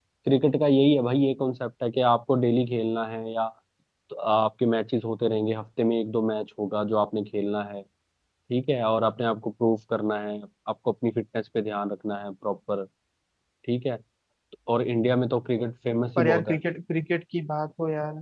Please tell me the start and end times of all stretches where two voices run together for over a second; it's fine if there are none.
none

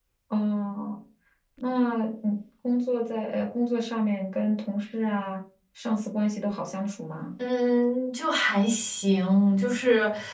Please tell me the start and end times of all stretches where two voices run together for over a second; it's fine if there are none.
none

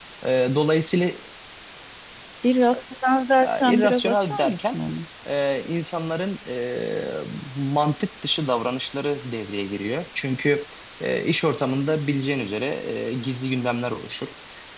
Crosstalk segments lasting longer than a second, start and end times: 3.4-4.8

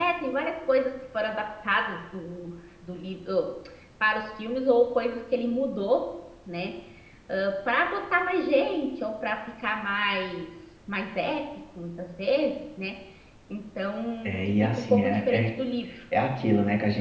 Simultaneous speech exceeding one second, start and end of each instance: 14.2-15.5

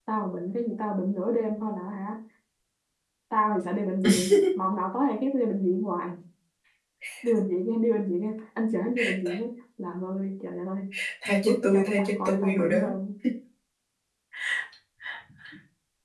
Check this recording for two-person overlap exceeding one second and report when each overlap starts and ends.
11.4-12.8

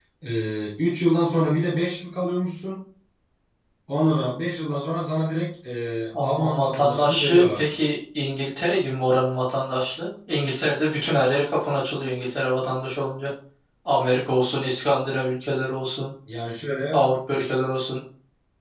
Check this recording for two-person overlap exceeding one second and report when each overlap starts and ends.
6.2-7.9

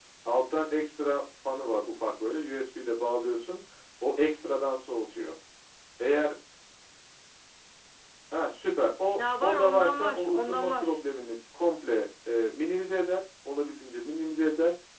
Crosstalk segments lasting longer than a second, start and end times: 9.2-11.0

